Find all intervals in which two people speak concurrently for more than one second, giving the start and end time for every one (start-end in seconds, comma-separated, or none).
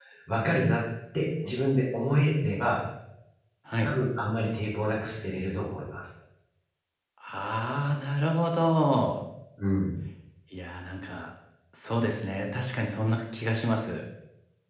none